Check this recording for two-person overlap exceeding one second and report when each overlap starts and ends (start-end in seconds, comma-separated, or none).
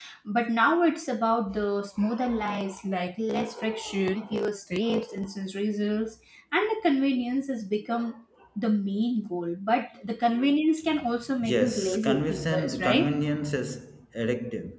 11.4-13.1